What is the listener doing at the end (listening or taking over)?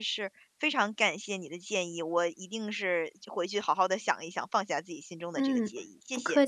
taking over